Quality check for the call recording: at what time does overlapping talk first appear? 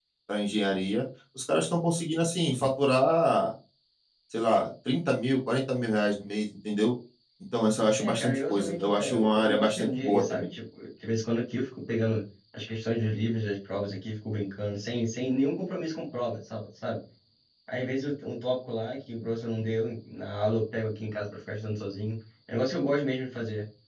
8.0 s

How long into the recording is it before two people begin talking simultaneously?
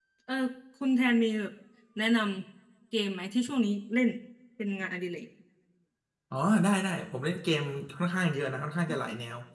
none

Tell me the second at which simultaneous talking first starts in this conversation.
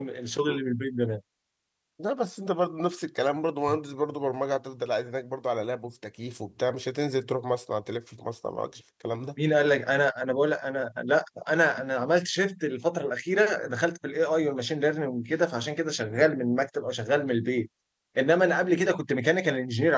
none

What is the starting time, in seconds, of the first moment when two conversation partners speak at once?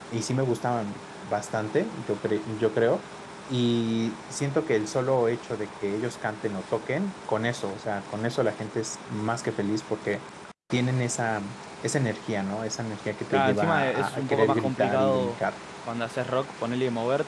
13.3 s

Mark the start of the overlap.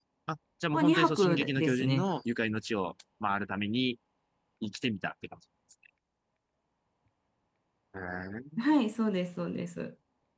0.7 s

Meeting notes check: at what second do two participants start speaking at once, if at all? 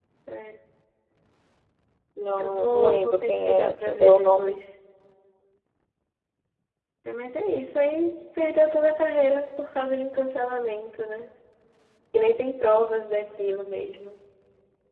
2.4 s

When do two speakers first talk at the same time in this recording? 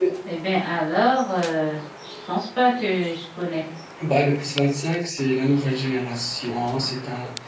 none

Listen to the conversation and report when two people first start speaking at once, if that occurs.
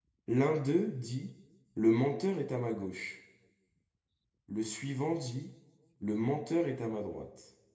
none

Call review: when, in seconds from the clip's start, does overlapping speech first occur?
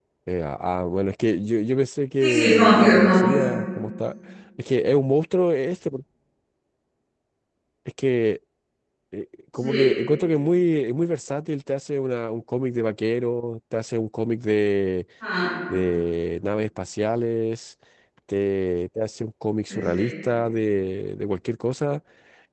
2.2 s

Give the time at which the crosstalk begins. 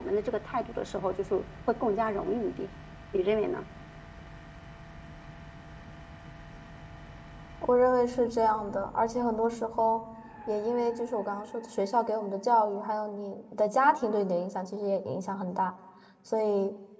none

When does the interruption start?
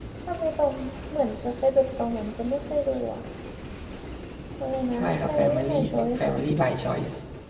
4.9 s

